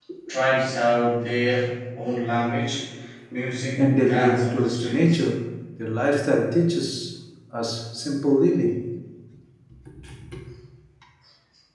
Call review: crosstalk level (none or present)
present